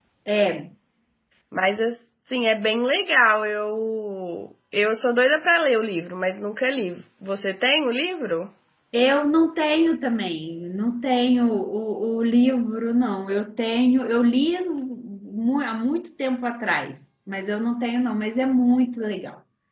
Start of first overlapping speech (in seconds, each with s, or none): none